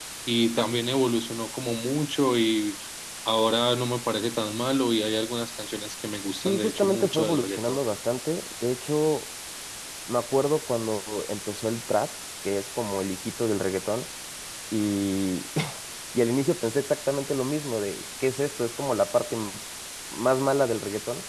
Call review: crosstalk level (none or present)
present